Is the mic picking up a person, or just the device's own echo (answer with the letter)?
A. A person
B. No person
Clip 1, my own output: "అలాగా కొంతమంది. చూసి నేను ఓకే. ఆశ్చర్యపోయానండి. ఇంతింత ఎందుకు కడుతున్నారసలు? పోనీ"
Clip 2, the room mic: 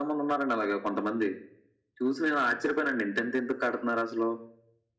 B